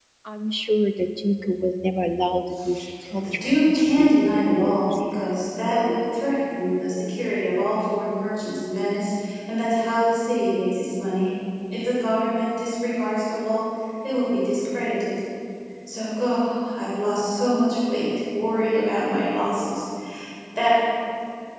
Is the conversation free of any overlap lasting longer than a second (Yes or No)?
No